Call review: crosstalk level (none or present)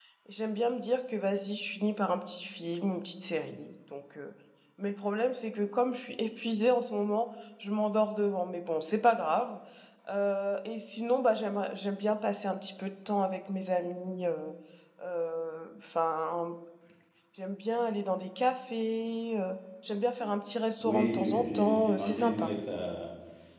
present